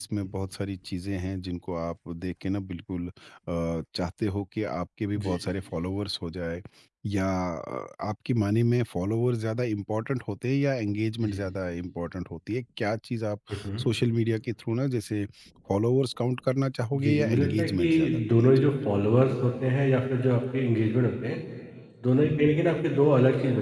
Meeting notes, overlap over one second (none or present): present